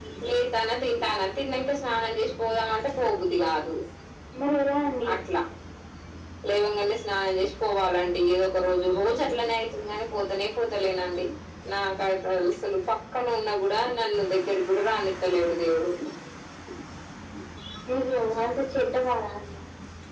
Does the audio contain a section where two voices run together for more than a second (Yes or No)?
No